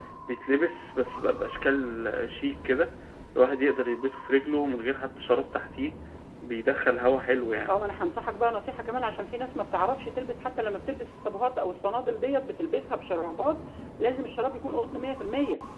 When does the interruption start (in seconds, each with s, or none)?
none